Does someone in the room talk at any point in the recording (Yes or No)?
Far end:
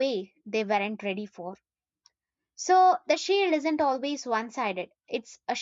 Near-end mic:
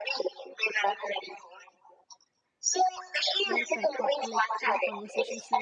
Yes